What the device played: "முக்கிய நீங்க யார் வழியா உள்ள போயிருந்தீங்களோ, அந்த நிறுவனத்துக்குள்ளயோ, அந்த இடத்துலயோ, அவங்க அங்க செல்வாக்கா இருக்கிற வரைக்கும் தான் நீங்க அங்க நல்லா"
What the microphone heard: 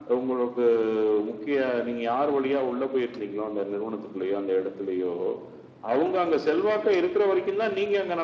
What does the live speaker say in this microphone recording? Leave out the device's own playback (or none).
none